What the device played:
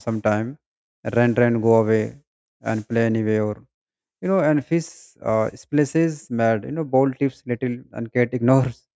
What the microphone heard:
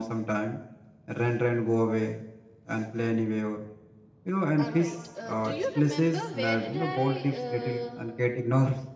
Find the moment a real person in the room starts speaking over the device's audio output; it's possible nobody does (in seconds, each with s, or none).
4.6 s